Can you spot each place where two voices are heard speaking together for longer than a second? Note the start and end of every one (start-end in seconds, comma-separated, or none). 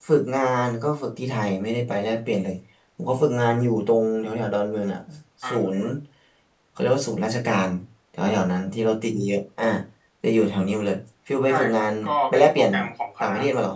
11.5-12.7